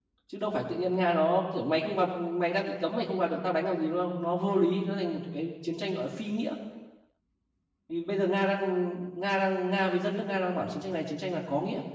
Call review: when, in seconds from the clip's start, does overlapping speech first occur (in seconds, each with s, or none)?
none